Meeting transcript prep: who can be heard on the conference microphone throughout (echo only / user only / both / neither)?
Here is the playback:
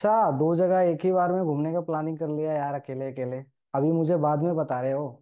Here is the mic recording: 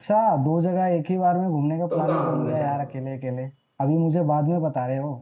both